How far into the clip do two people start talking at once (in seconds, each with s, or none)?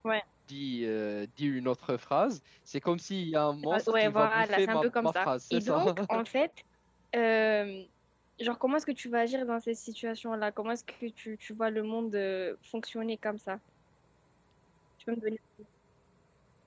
3.6 s